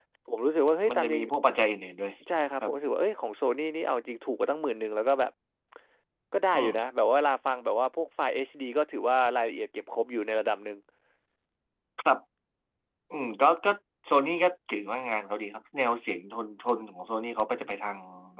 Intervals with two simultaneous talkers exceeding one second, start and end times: none

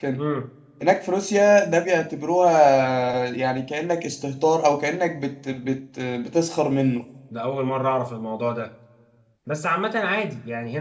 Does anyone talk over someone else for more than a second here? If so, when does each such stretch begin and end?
none

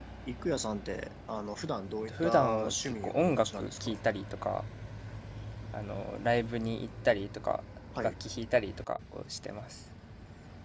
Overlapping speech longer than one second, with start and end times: 2.1-4.0

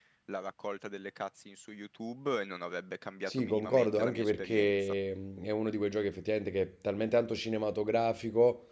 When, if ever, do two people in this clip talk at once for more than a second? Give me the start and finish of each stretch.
3.3-4.9

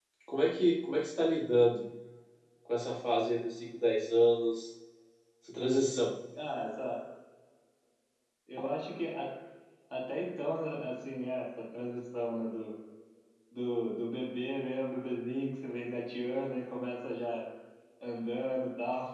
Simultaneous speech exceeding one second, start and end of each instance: none

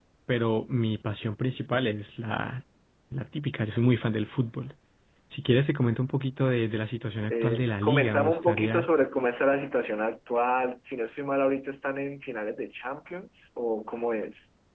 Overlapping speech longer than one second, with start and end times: 7.3-8.9

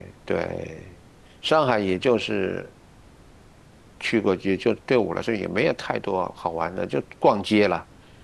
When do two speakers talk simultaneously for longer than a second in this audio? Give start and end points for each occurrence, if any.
none

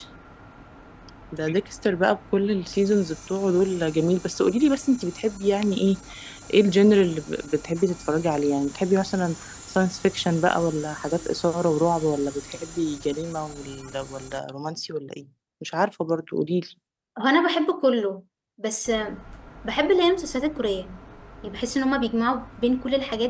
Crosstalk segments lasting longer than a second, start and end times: none

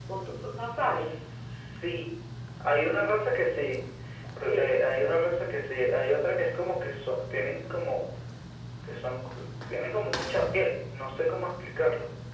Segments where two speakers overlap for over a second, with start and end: none

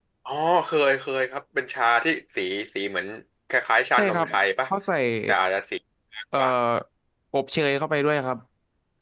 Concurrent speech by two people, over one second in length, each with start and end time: none

